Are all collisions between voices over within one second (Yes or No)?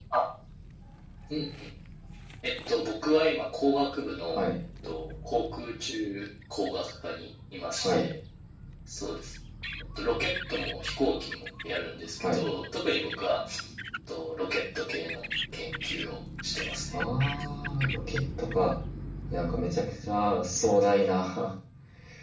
Yes